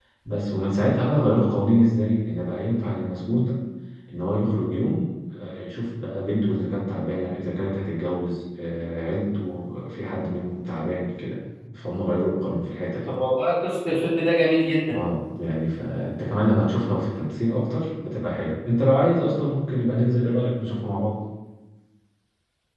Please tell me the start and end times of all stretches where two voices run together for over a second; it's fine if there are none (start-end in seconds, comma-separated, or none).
none